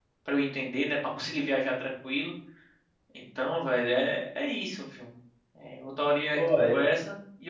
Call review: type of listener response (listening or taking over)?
listening